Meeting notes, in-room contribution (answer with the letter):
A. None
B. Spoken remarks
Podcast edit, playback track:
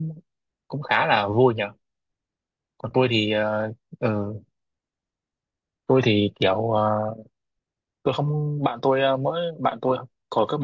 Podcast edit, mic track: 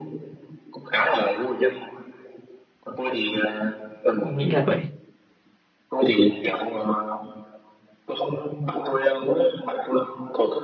B